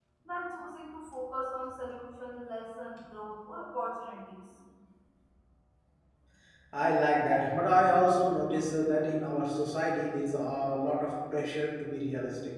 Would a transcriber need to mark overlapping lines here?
No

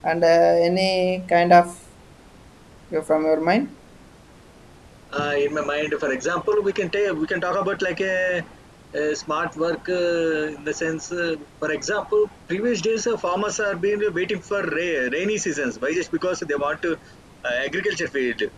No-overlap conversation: Yes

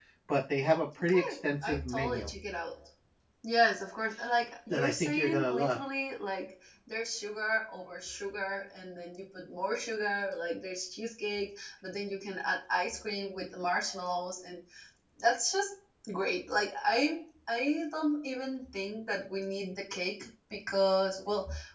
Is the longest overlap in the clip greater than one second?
Yes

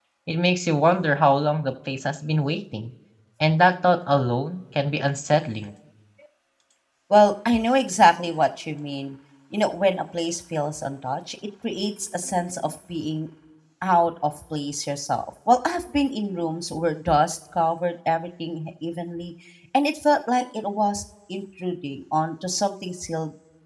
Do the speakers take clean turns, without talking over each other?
Yes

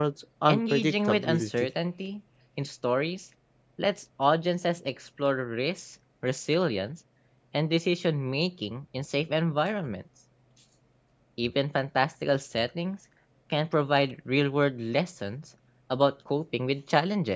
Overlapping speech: Yes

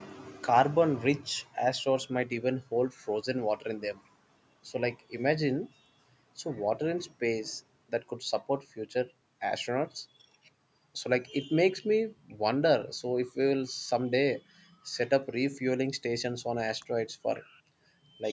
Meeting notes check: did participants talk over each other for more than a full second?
No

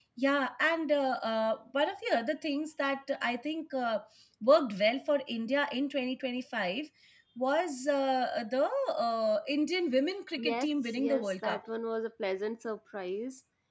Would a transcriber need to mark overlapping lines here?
Yes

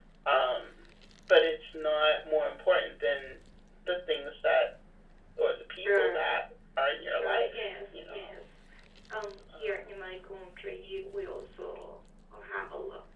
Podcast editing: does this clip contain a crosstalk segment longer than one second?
Yes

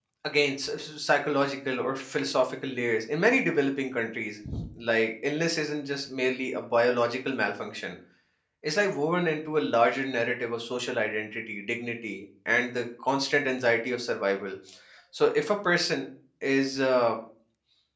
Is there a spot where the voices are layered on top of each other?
No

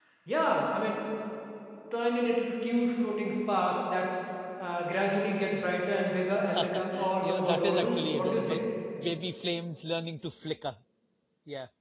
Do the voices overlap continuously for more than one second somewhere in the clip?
Yes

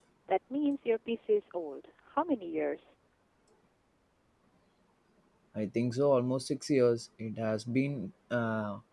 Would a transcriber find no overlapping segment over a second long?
Yes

